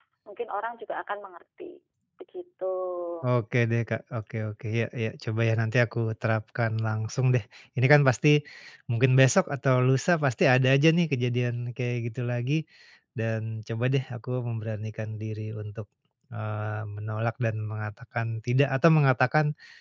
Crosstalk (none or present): none